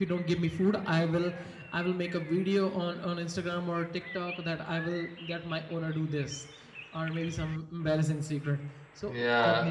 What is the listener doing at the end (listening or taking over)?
taking over